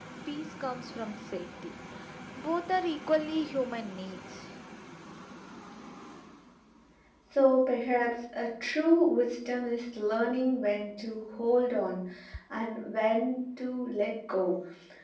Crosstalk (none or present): none